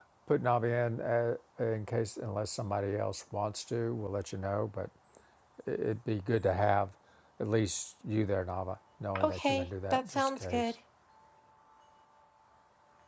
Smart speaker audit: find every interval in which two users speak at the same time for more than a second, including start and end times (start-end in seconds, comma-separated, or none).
9.2-10.7